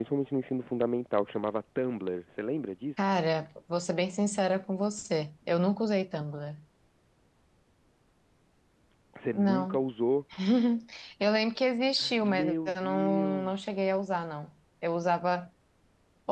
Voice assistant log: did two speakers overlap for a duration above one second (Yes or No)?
Yes